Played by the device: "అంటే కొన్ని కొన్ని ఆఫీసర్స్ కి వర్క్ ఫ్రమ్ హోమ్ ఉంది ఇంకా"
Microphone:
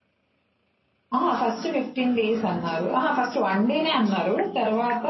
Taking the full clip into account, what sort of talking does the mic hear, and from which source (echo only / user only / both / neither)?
user only